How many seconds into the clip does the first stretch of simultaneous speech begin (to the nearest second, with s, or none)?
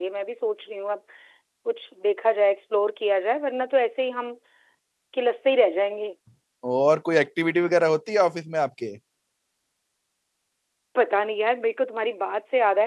none